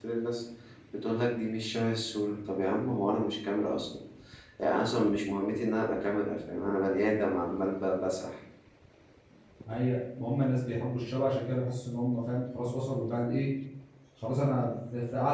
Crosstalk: none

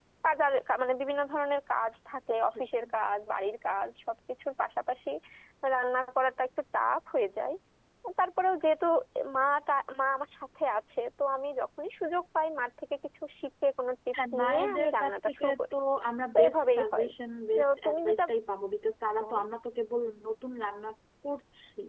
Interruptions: present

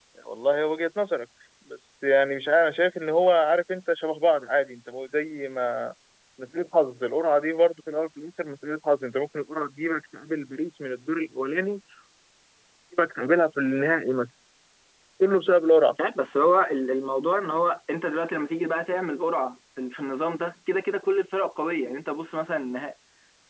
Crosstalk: none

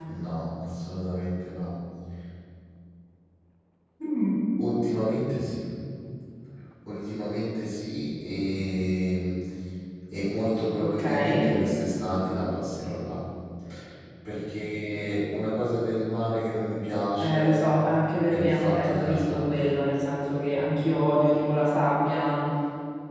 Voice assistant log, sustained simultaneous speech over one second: present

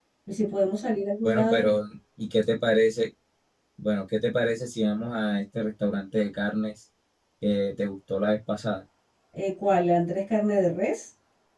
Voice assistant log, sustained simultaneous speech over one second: none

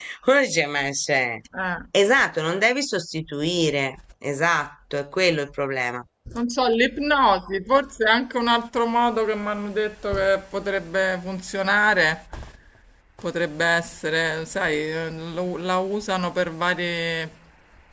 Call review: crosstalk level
none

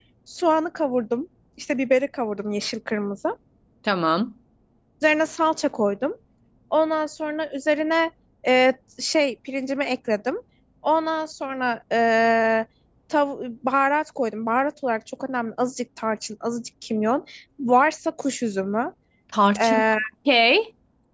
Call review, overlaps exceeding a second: none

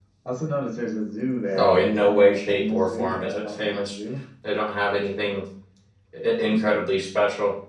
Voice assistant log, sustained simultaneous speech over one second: present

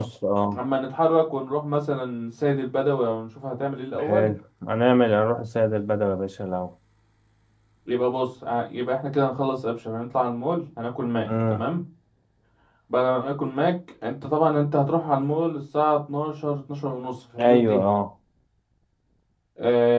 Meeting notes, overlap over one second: none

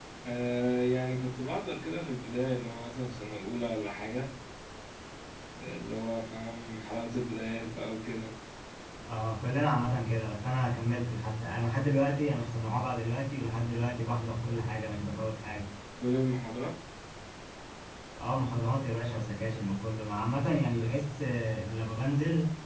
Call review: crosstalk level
none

